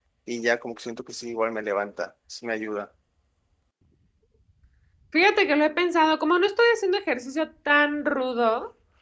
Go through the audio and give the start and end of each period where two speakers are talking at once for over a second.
none

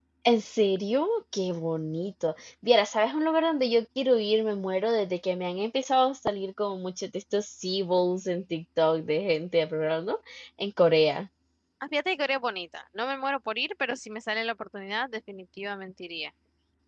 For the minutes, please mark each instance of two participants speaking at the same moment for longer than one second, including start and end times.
none

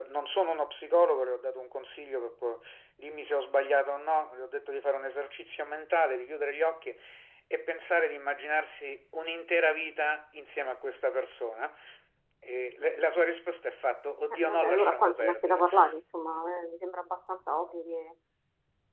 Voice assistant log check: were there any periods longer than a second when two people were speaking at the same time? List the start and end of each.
14.3-15.7

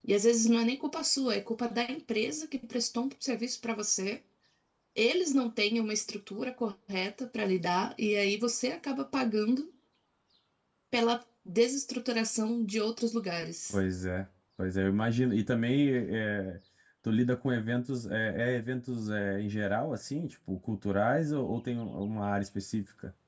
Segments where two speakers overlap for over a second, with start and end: none

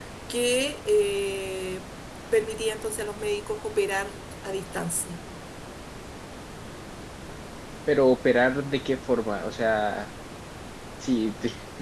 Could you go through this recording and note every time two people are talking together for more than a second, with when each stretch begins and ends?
none

